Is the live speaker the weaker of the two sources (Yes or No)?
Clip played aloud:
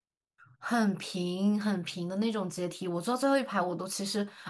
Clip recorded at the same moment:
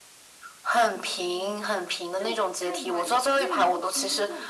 Yes